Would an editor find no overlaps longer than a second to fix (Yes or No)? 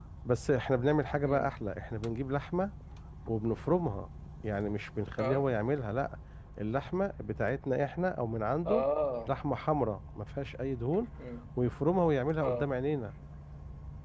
Yes